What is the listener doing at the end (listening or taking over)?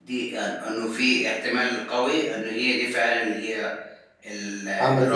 listening